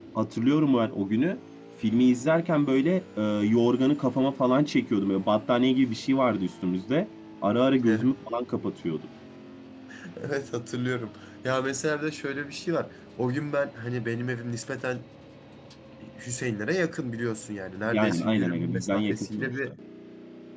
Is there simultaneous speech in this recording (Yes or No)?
Yes